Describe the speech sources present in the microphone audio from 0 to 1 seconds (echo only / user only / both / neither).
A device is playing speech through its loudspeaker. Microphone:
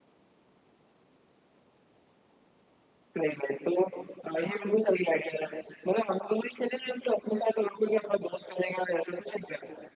neither